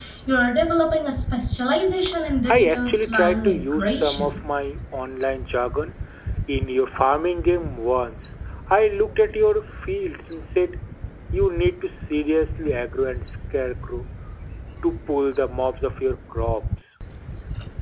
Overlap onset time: 2.5 s

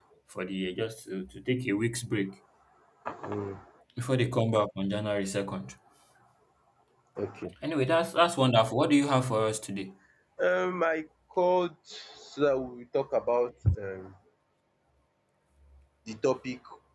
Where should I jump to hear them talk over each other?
none

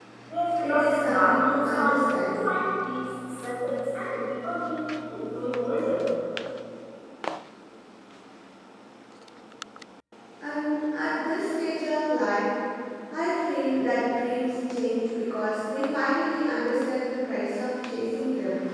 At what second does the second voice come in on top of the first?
0.6 s

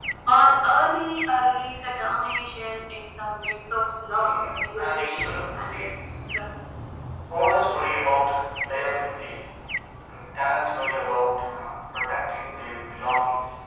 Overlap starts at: 4.0 s

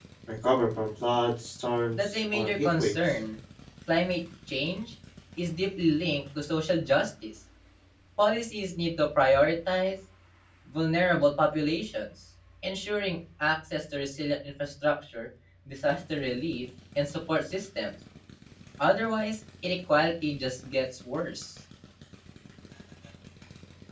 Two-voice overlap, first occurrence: 1.9 s

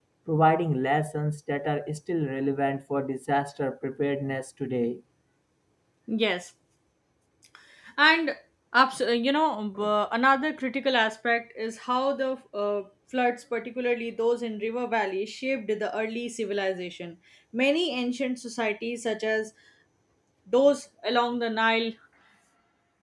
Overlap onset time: none

